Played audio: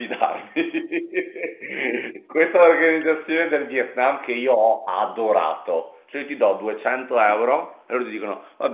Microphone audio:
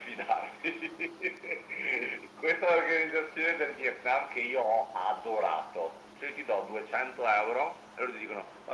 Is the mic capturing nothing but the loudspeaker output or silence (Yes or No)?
Yes